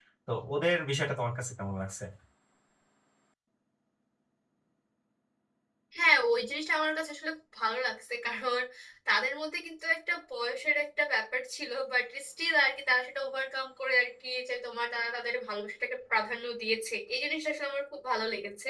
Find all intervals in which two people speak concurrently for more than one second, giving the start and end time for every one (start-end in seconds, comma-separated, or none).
none